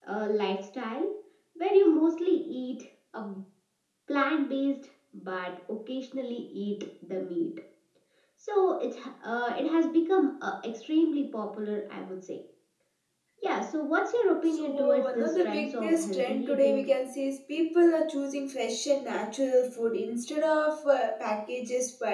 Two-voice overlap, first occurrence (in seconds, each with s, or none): 14.4 s